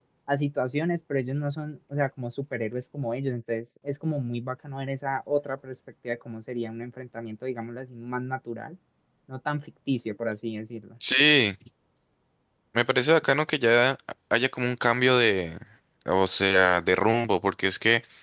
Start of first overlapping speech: none

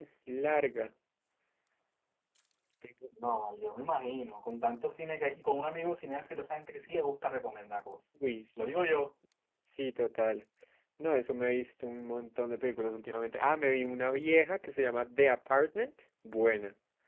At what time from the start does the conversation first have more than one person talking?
none

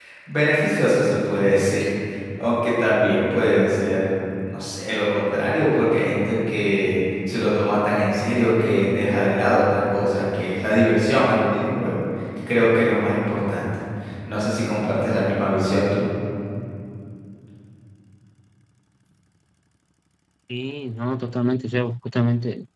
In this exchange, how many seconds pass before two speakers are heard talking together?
none

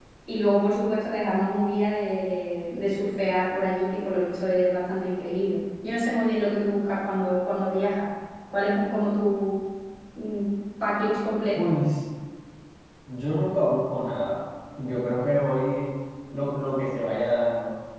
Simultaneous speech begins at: none

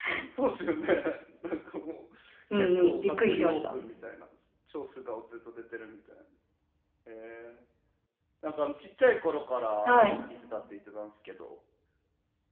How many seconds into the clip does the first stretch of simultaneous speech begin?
2.5 s

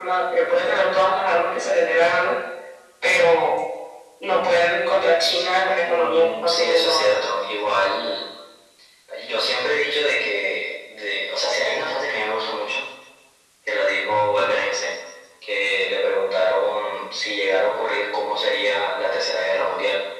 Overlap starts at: 5.8 s

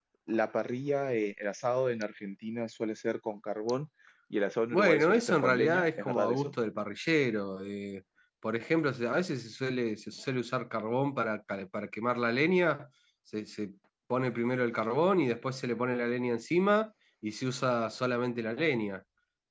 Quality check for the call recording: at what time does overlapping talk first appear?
4.7 s

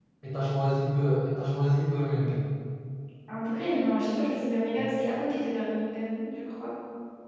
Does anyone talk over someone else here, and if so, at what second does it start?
none

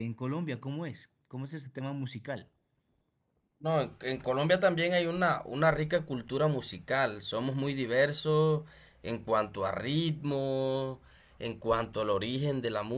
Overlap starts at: none

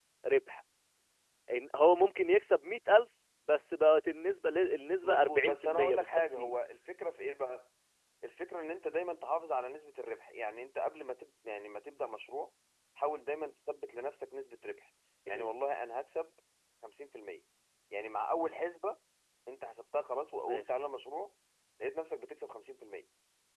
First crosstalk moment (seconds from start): 5.0 s

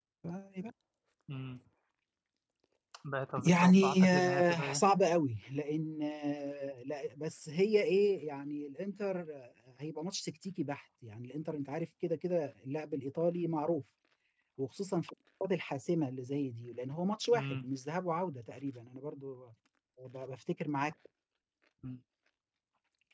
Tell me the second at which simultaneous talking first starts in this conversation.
3.5 s

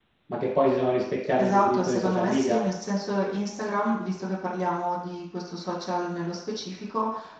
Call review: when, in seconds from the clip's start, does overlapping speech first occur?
1.4 s

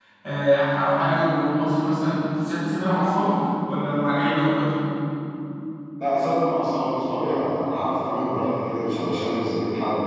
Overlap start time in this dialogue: none

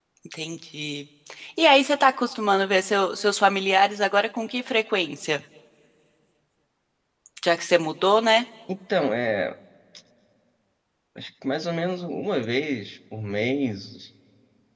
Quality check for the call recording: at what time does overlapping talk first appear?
none

